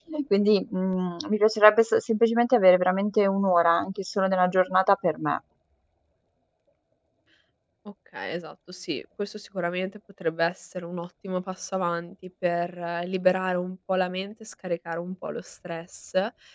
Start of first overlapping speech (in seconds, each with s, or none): none